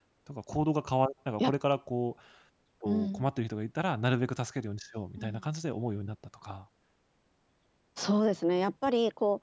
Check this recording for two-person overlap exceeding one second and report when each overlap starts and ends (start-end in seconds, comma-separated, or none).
none